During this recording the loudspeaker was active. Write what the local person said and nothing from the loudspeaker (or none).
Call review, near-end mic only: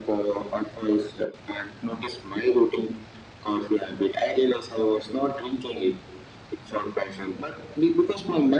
none